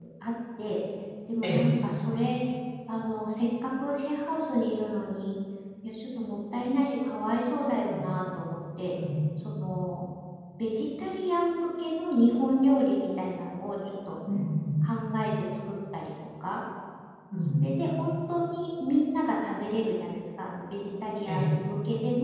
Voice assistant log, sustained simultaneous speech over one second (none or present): none